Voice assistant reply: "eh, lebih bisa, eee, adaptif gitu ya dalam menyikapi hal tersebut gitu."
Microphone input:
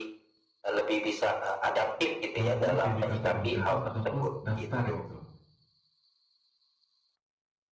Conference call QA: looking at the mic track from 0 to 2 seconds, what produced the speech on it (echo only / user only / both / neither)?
echo only